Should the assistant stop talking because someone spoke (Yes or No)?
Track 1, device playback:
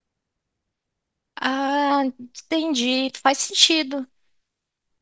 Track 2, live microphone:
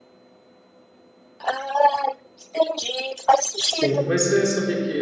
Yes